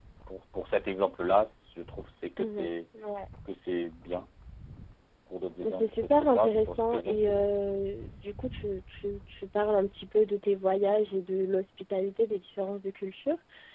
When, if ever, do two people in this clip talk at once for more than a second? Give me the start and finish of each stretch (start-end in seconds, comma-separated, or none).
5.6-7.5